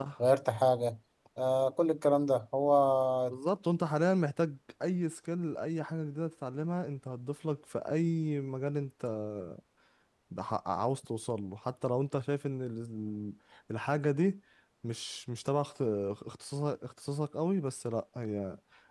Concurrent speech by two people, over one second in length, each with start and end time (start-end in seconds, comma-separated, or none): none